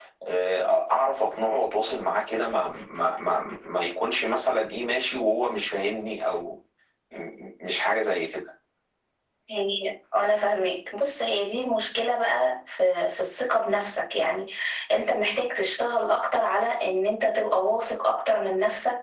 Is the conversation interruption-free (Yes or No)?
Yes